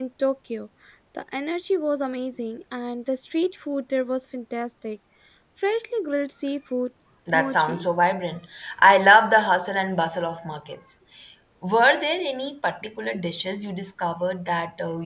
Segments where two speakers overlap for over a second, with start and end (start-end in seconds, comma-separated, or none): none